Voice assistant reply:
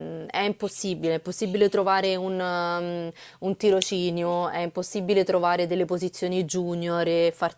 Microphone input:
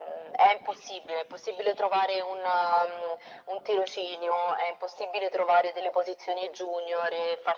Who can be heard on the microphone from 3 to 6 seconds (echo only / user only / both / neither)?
echo only